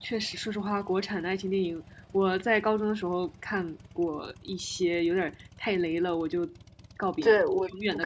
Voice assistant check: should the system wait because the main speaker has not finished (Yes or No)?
No